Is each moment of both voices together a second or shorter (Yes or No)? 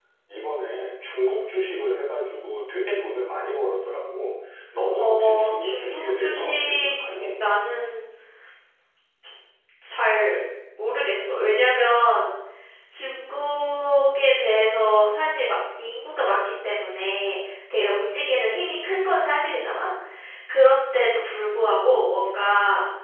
No